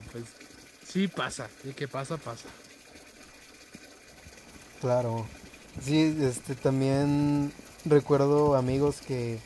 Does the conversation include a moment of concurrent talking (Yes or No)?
No